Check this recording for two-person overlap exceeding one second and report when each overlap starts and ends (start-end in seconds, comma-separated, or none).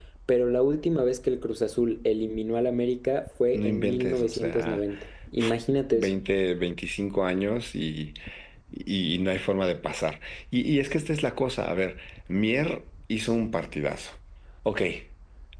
3.5-4.8